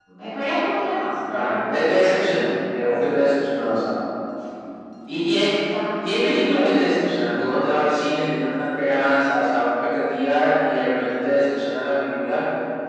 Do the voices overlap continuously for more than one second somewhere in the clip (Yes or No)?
No